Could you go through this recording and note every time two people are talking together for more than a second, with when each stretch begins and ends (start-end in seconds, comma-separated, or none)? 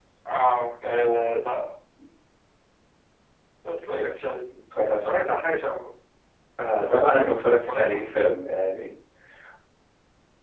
6.7-8.1